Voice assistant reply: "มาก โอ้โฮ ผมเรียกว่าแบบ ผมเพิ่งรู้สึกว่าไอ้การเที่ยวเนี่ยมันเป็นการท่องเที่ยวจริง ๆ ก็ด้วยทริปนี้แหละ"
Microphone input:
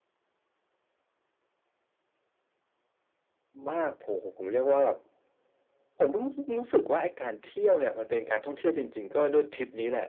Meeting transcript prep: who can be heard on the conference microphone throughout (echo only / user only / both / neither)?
echo only